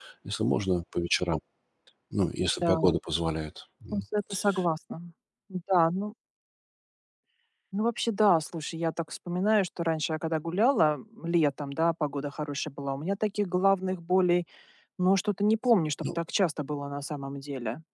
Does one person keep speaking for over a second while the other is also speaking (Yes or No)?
No